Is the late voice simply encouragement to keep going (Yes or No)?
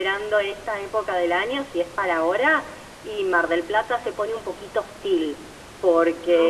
Yes